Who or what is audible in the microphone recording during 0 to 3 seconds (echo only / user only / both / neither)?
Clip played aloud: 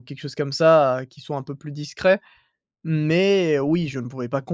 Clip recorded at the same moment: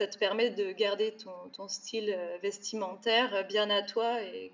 user only